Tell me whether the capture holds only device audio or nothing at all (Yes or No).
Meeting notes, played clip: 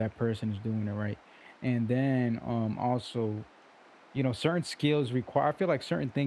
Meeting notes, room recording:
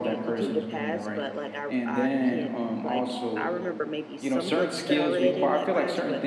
No